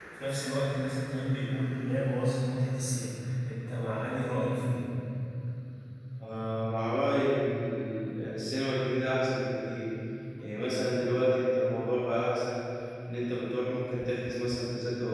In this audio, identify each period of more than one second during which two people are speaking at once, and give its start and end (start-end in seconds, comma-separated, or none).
none